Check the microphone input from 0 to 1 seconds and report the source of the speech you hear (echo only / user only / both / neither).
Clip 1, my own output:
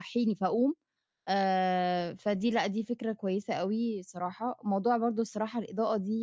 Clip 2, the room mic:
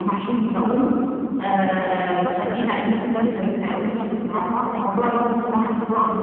echo only